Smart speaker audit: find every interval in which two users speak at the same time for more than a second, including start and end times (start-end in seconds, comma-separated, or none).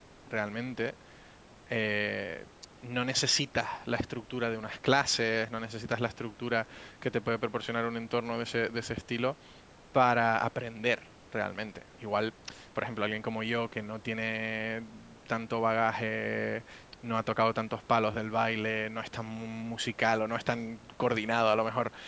none